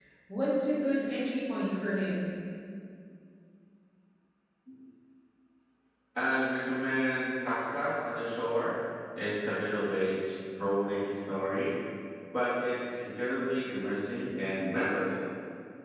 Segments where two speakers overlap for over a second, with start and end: none

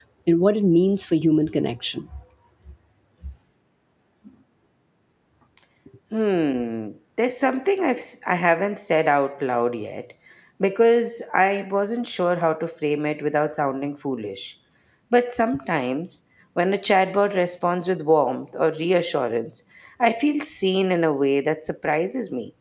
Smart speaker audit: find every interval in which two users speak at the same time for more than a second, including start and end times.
none

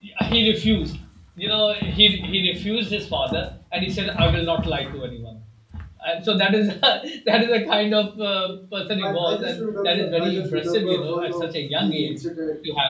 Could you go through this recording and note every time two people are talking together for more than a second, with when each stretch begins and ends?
9.0-12.2

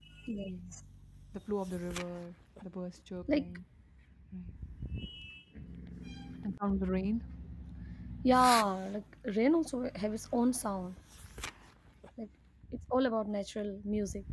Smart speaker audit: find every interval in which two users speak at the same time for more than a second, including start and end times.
none

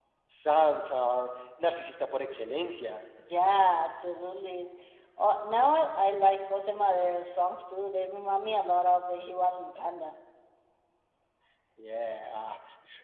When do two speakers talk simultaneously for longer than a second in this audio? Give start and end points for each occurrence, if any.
none

